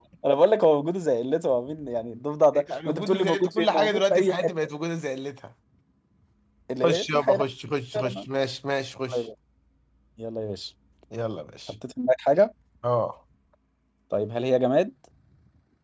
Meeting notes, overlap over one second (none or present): present